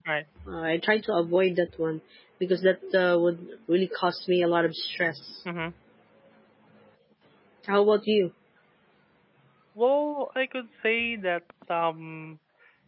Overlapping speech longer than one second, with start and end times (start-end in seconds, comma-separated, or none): none